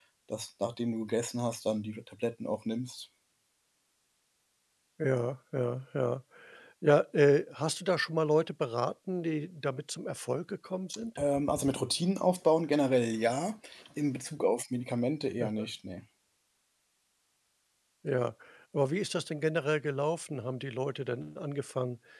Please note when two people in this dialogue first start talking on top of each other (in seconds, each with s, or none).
none